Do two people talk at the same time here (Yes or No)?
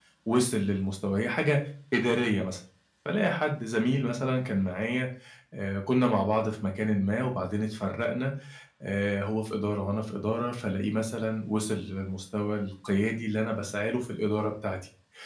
No